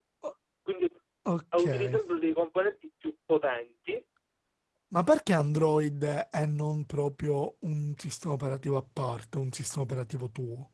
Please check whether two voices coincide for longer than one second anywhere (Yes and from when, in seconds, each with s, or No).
No